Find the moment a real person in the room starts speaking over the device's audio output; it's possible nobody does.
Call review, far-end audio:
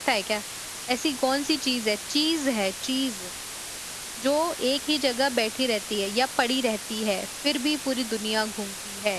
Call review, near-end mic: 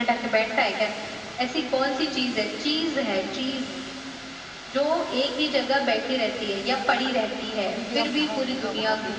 7.7 s

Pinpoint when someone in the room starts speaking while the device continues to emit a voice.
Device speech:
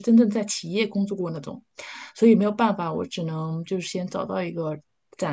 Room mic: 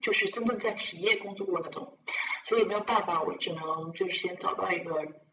none

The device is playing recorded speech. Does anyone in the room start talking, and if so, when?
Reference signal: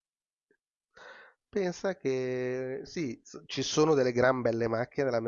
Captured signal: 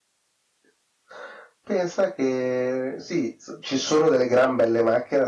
none

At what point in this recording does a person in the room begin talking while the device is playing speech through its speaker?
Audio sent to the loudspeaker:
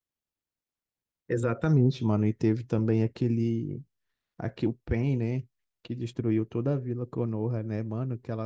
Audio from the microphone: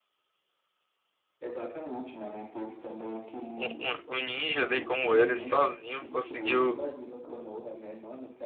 3.6 s

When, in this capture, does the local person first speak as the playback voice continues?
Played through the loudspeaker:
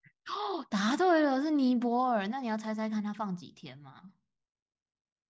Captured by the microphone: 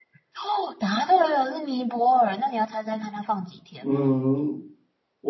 3.8 s

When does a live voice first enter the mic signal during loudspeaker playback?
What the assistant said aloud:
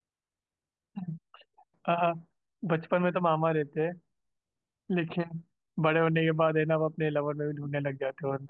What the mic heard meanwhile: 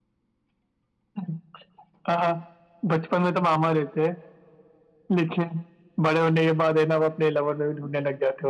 none

